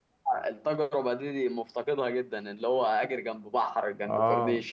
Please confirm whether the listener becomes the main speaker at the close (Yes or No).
Yes